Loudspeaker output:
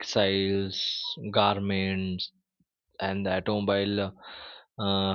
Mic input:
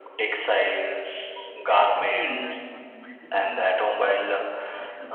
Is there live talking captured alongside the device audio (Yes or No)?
Yes